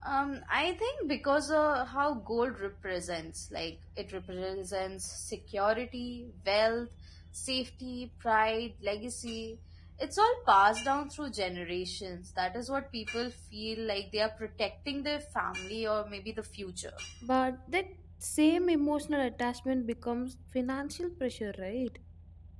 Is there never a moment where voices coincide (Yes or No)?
Yes